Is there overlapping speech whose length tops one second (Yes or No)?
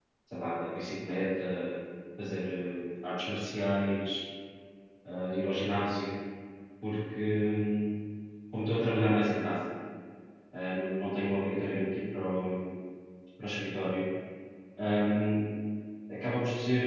No